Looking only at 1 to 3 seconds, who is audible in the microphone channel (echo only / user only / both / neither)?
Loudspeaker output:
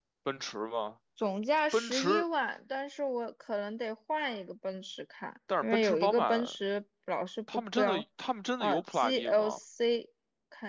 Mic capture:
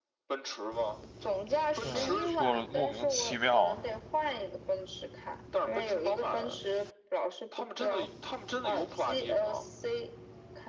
both